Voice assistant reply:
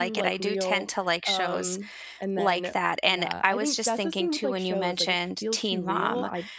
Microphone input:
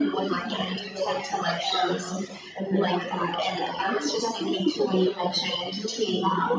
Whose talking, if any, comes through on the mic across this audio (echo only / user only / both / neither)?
echo only